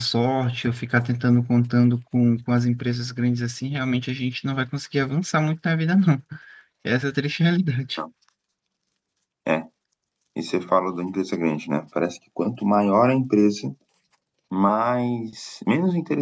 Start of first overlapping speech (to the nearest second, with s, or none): none